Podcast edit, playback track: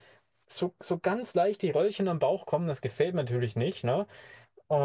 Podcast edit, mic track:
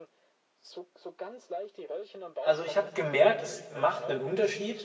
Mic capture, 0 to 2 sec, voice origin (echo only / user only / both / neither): echo only